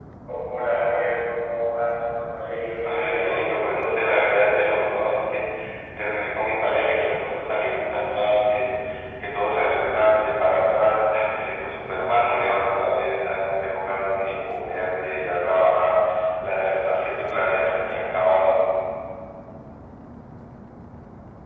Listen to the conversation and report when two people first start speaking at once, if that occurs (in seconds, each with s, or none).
2.8 s